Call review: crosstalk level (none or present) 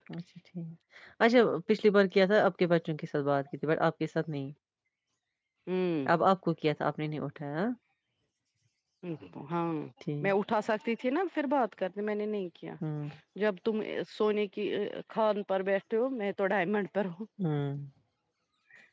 none